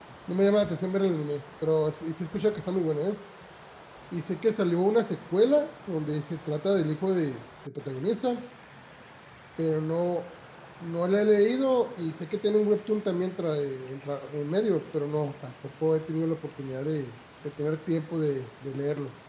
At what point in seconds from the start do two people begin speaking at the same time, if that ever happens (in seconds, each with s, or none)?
none